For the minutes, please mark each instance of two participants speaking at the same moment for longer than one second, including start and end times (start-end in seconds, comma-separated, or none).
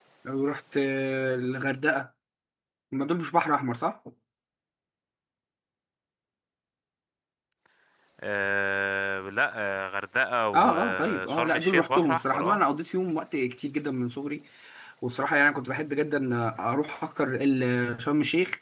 10.5-12.6